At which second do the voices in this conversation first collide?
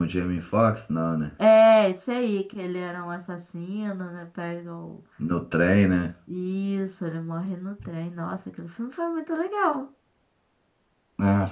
none

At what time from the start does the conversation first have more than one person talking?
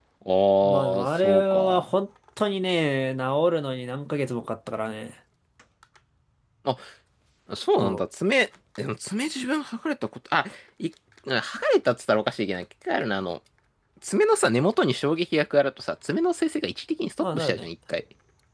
0.6 s

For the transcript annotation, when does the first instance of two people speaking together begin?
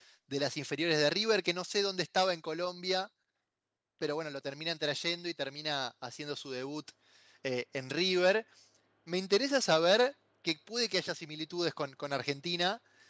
none

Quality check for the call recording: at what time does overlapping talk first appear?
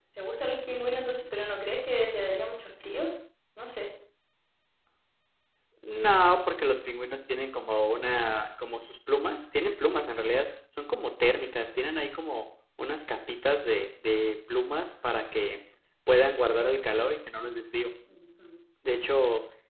none

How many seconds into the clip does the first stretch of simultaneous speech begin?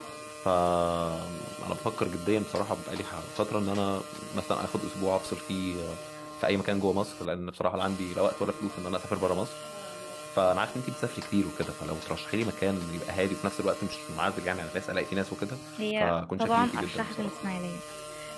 15.8 s

